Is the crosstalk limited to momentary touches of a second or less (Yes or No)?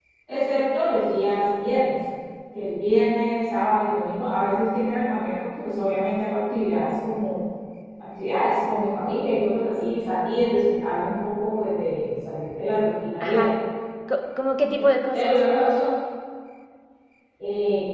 Yes